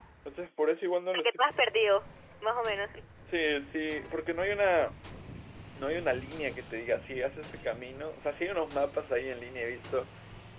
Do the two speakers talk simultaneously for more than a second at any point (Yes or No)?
No